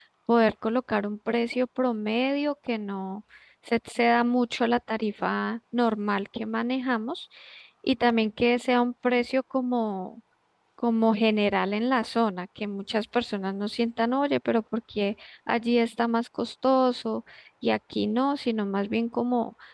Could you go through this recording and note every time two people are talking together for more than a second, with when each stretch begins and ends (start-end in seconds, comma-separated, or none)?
none